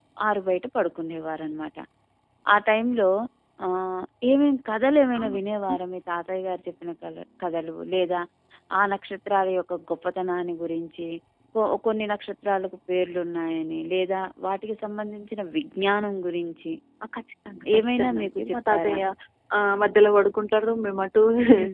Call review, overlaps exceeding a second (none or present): present